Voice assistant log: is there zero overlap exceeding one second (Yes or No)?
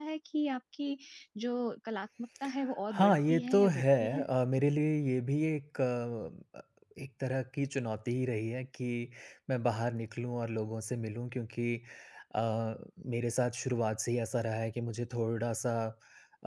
No